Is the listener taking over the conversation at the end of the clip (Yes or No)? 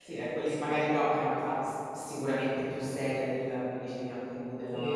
Yes